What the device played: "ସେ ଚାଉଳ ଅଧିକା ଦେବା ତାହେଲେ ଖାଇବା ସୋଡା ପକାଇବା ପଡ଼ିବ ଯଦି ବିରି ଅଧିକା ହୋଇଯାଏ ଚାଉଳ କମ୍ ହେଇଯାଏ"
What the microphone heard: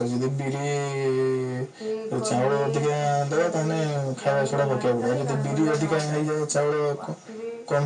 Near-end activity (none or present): present